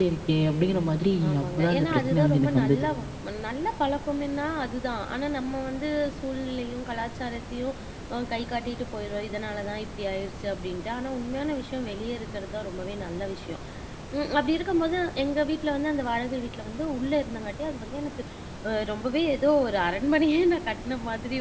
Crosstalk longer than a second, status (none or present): present